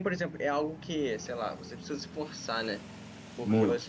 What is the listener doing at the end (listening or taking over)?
listening